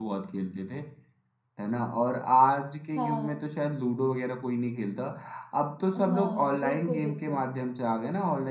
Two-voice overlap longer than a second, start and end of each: 5.9-7.4

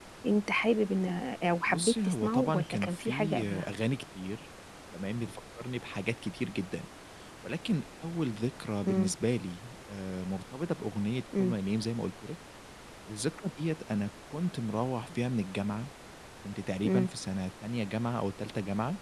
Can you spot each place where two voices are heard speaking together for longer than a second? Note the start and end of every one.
1.7-3.6

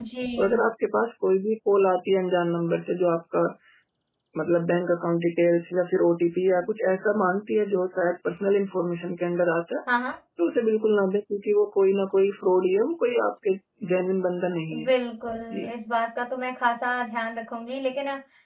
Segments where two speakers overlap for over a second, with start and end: none

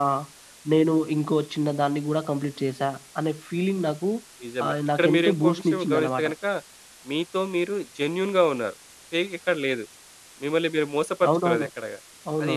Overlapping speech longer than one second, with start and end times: 4.7-6.3

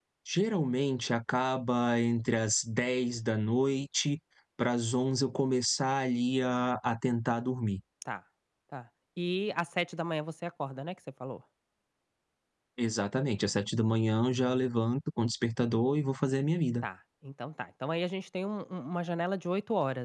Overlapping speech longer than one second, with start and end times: none

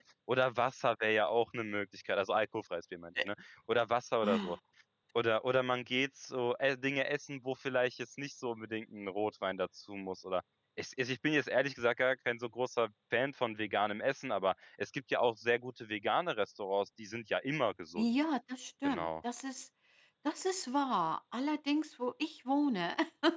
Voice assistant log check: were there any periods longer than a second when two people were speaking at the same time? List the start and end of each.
none

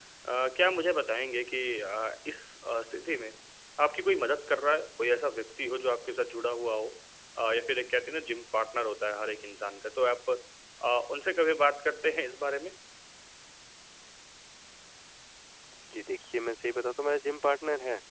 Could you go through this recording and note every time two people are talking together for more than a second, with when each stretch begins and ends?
none

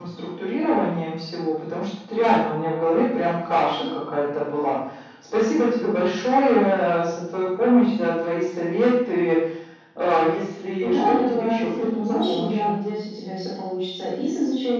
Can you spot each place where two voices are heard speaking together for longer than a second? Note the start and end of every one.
10.8-12.7

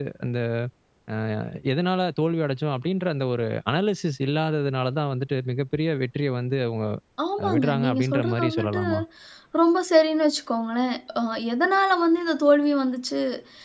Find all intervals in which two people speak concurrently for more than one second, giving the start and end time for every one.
7.6-8.8

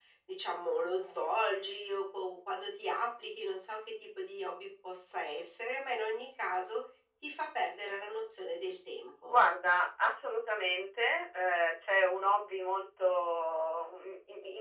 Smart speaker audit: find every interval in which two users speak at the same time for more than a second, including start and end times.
none

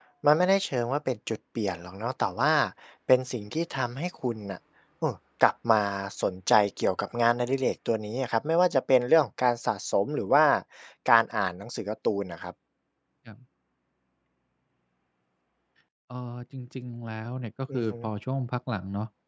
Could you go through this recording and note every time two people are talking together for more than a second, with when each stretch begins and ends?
none

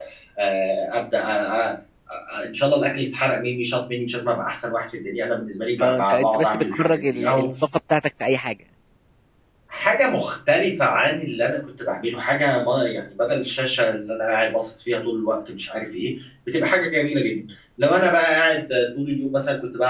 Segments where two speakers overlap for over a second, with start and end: 5.8-7.5

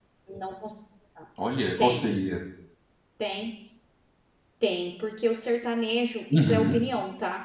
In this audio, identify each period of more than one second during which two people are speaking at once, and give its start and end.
none

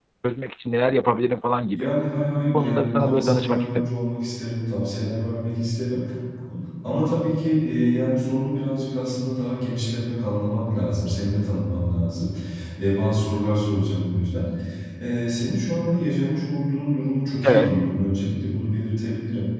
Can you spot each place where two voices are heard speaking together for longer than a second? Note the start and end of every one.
2.5-3.9

